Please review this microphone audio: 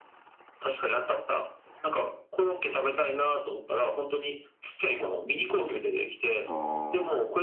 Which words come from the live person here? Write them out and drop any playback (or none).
あ